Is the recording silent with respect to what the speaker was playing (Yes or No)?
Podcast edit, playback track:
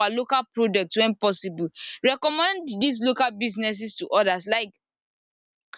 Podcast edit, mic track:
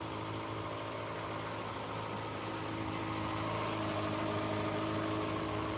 Yes